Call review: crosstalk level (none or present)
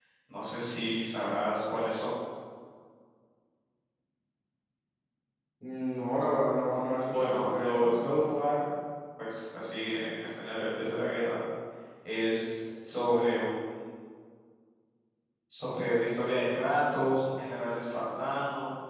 present